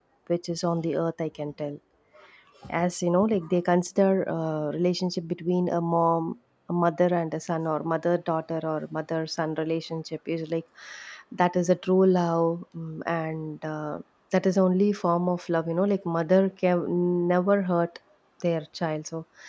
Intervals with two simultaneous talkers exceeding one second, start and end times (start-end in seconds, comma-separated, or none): none